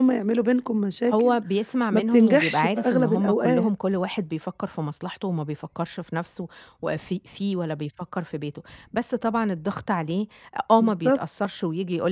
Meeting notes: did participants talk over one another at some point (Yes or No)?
Yes